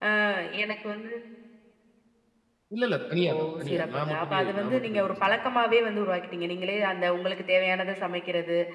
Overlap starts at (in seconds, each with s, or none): 3.3 s